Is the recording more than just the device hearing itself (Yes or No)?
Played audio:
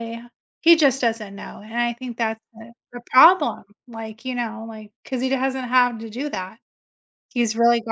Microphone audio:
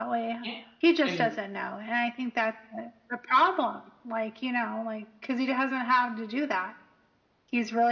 Yes